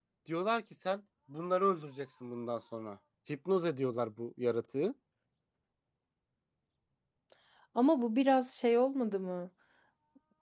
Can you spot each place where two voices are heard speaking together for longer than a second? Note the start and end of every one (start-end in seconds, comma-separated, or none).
none